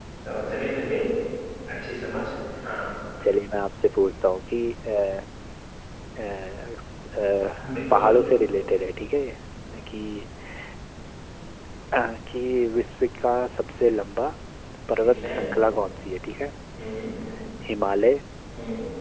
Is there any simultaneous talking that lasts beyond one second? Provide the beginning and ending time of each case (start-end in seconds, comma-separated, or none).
none